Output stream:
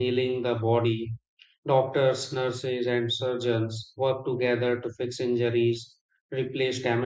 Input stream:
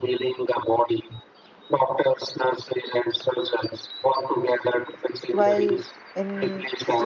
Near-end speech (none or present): present